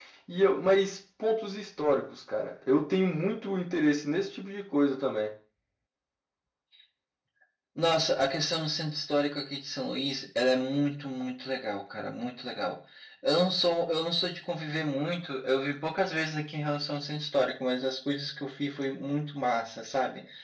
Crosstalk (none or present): none